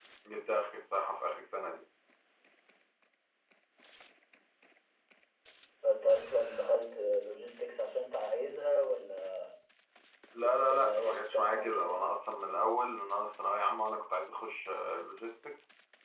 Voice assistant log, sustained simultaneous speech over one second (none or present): present